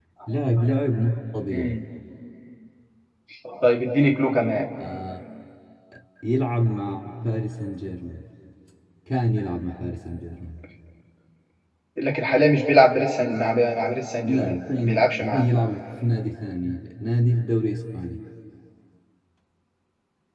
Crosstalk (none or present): present